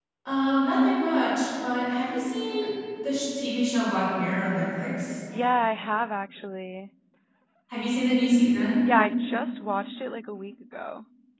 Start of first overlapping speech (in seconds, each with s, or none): none